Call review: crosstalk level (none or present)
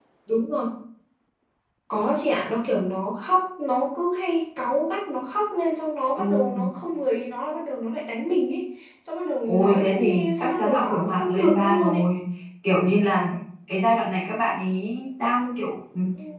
present